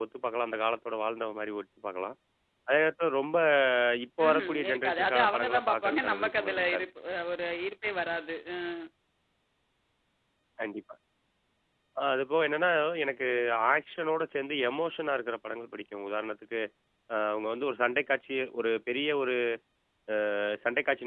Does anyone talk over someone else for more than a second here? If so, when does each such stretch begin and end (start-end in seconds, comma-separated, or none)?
4.2-6.8